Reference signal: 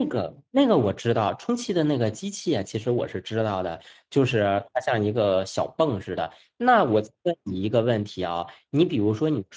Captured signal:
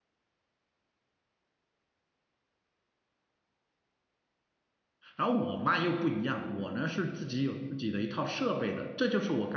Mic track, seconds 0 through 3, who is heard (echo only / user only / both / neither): neither